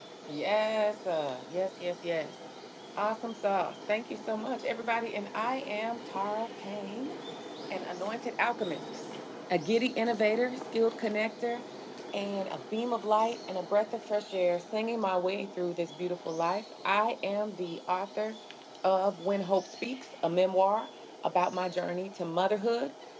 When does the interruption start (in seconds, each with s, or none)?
none